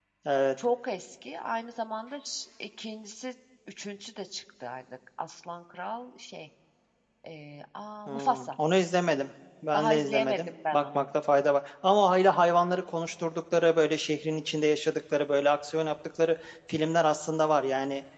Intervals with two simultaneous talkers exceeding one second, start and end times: 9.7-11.0

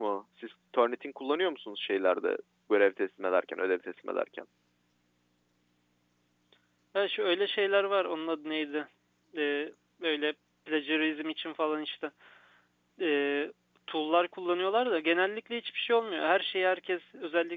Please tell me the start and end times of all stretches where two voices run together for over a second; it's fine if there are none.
none

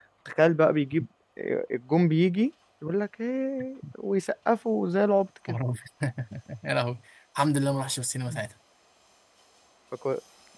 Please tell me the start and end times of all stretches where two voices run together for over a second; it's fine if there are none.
none

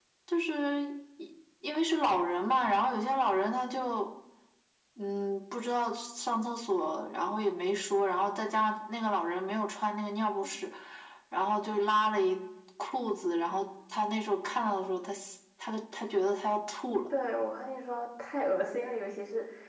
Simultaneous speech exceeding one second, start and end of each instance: none

